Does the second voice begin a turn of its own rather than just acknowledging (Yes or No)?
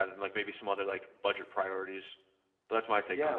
Yes